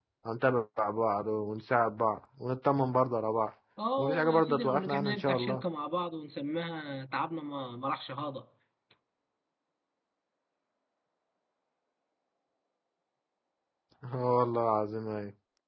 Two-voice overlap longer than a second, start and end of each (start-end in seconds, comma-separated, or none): 4.0-5.6